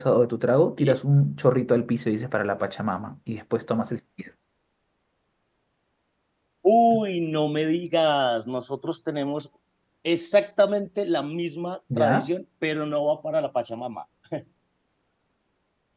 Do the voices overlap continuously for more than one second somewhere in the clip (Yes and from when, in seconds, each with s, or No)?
No